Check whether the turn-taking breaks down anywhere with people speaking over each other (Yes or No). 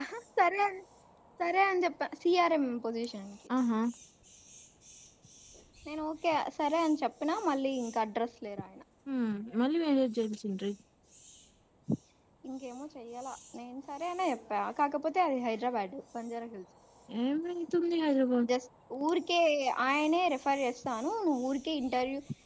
No